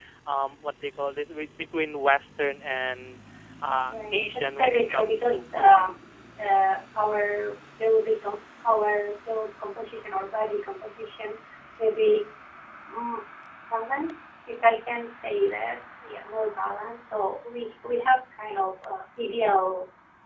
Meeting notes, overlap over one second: present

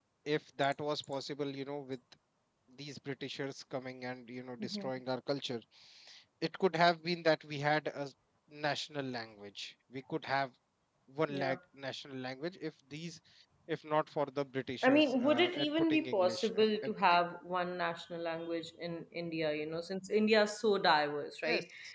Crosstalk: present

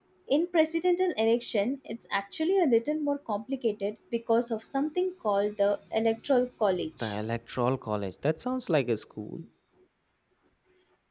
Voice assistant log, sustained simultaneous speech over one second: none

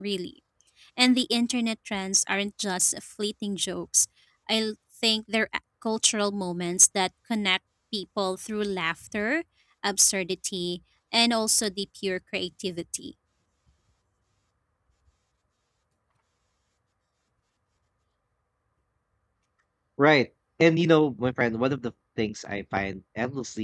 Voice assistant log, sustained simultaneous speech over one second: none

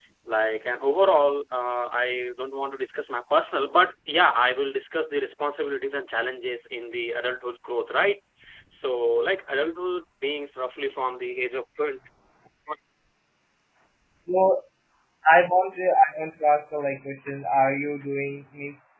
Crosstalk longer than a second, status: none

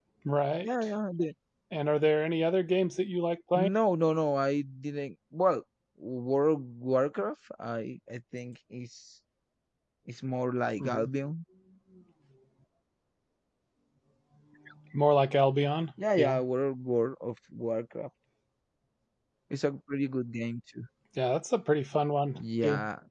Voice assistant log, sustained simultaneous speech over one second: none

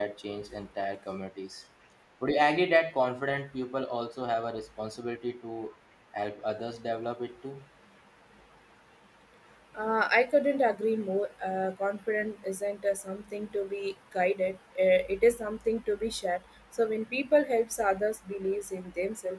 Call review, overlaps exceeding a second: none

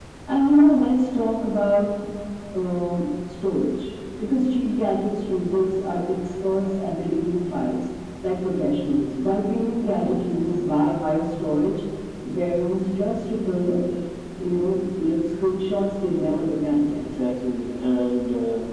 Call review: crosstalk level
none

